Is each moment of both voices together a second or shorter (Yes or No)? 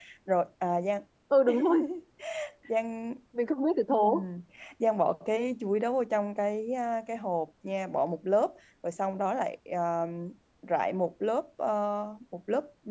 Yes